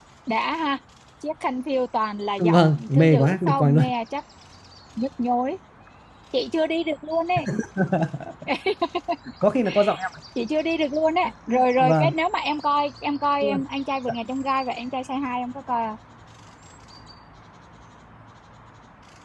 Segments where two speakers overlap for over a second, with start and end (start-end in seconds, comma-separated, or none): 2.4-3.8